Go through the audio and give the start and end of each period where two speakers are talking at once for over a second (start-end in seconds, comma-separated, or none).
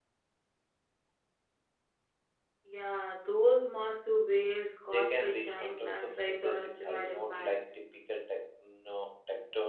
4.9-7.5